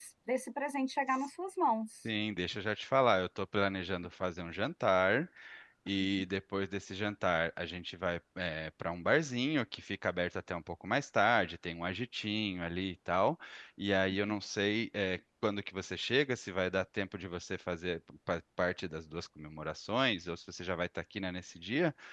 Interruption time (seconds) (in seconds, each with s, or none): none